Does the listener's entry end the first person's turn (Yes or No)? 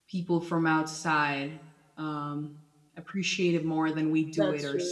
No